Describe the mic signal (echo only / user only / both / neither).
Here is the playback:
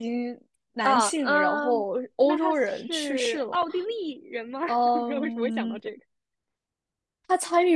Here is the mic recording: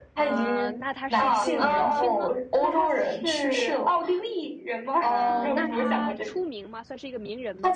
both